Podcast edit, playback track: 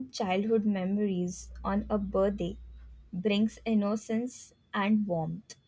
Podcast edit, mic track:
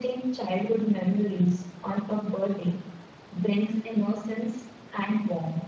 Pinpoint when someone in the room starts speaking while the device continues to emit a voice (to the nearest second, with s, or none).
none